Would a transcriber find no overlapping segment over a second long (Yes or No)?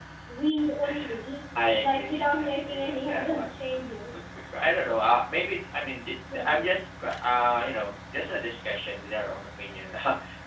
No